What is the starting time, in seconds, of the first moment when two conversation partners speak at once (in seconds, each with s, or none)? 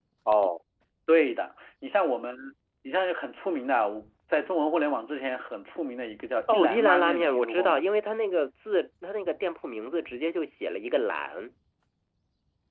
6.5 s